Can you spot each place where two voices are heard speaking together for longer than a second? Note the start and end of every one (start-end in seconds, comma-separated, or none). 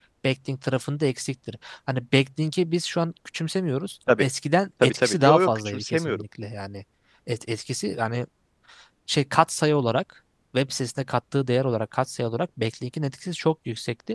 4.8-6.2